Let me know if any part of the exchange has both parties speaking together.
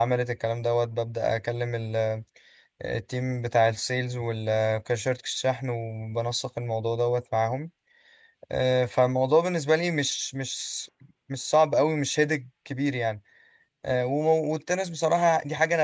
No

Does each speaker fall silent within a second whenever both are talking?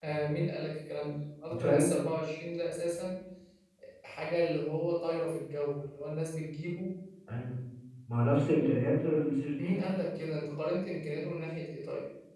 Yes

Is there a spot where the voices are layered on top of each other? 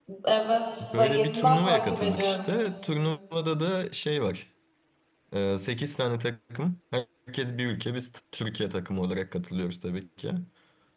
Yes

